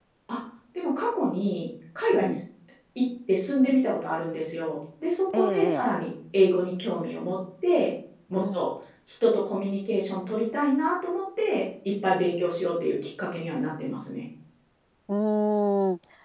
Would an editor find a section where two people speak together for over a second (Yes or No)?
No